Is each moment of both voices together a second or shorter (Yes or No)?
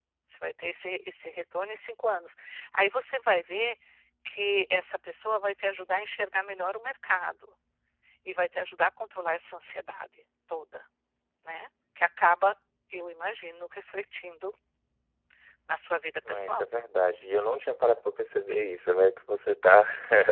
Yes